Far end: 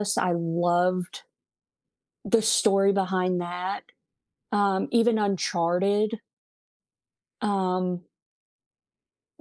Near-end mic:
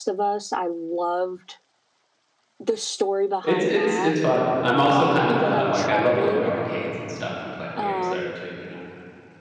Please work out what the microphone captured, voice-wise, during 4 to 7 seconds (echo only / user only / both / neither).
both